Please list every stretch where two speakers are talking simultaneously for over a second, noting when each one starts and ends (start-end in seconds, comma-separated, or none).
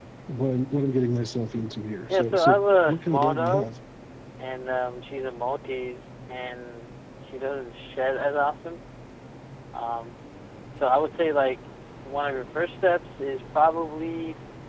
2.1-3.7